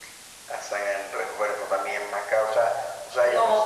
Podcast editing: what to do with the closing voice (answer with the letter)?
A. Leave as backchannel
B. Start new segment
B